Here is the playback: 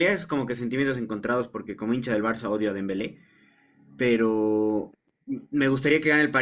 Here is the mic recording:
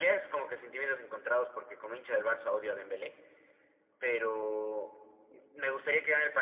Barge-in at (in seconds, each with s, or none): none